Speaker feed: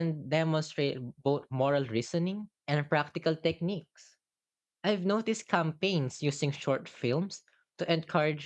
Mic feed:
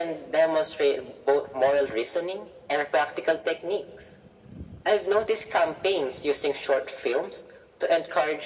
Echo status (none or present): present